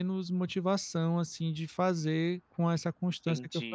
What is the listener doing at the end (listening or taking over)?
taking over